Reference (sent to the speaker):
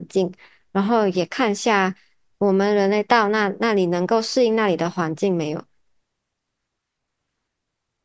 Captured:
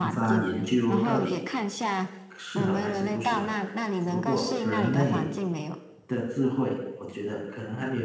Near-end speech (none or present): present